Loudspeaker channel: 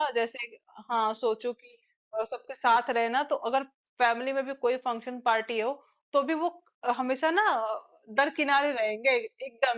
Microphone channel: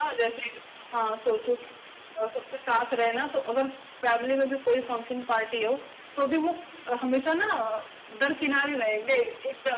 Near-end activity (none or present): none